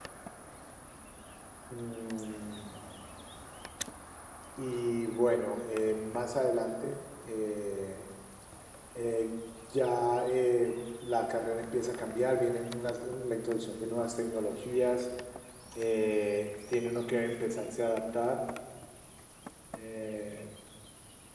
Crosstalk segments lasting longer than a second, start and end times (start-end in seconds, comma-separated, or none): none